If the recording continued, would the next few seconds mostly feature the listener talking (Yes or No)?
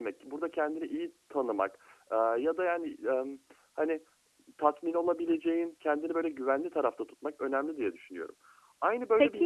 Yes